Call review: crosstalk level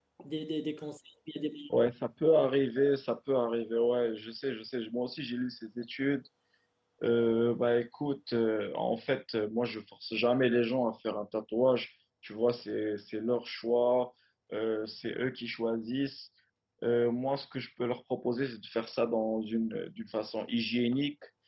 none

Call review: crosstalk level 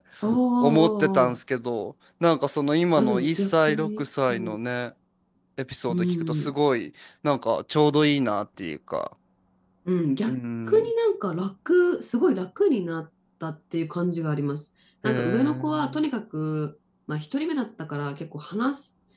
present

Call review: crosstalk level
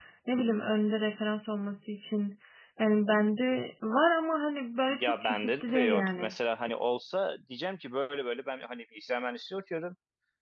present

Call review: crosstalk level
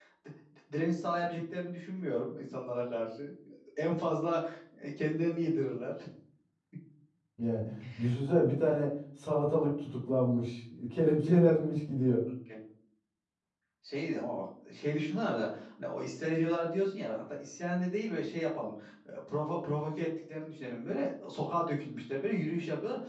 none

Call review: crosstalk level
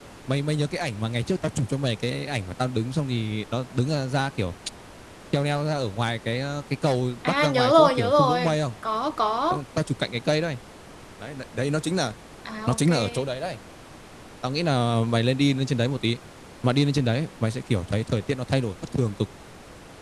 present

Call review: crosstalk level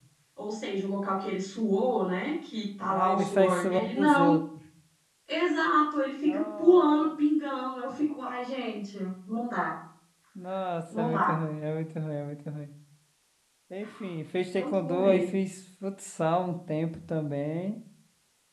present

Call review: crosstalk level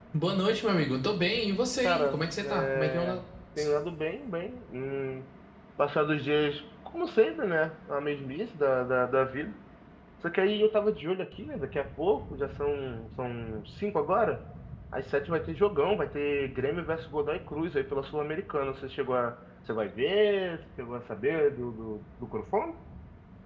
present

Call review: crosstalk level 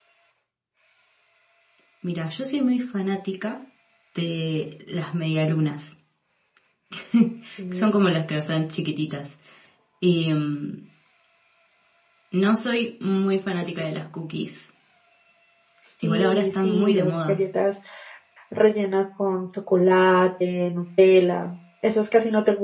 present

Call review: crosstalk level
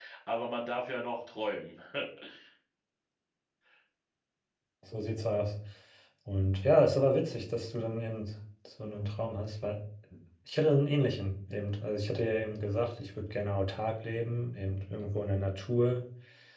none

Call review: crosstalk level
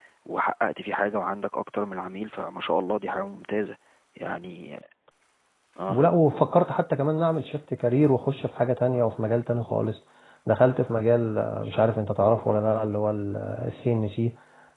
none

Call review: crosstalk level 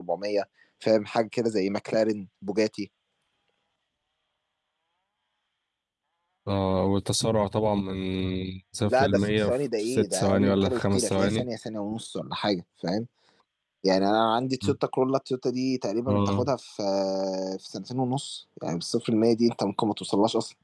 present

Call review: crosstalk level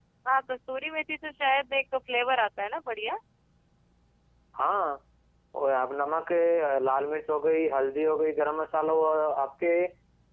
none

